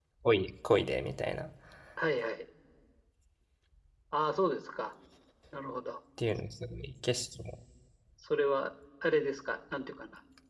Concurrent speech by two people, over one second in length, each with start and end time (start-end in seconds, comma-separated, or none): none